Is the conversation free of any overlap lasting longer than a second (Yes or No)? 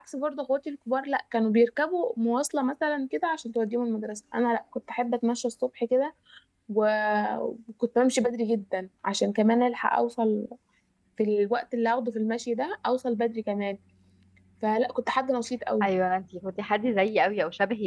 Yes